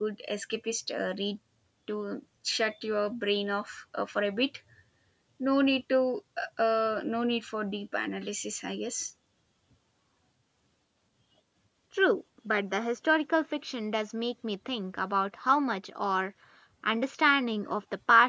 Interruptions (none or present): none